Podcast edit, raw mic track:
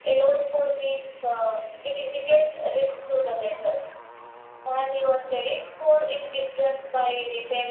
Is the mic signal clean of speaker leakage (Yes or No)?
No